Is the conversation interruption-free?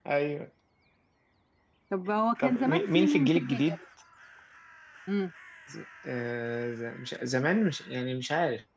No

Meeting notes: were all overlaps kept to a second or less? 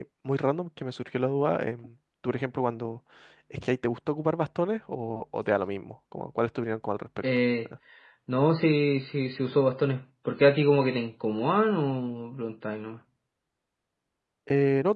Yes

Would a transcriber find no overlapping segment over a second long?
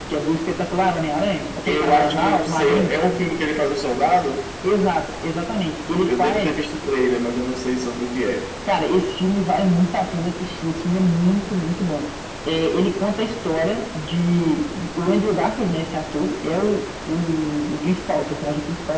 No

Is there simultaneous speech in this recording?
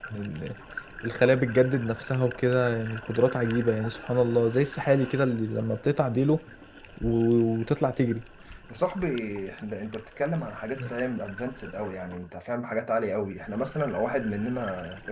No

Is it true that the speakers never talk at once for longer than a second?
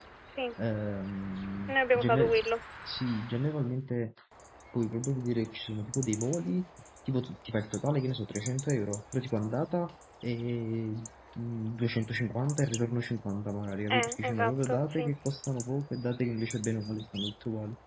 No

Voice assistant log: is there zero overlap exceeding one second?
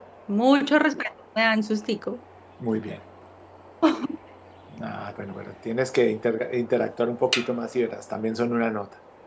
Yes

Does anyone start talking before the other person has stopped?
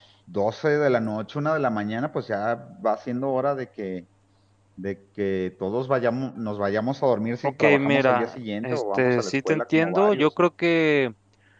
Yes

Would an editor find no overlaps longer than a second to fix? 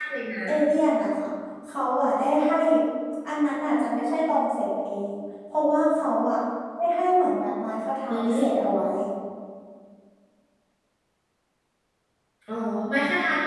Yes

